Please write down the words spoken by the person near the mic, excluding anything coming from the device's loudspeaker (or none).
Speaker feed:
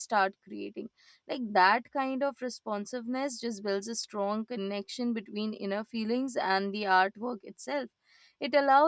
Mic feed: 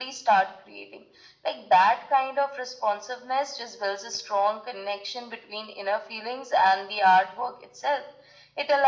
none